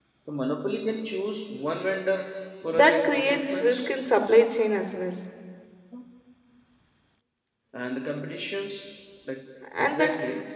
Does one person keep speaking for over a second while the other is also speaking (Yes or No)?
Yes